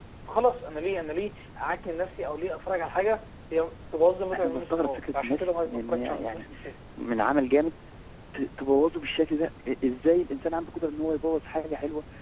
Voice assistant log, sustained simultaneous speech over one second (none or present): present